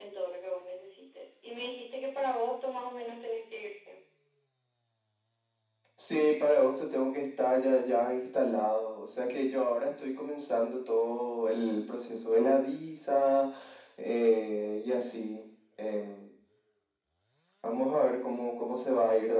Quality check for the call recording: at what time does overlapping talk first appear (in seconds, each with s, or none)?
none